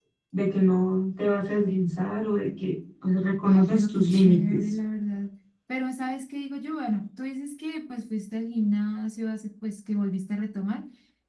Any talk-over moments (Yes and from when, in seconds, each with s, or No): Yes, from 3.4 s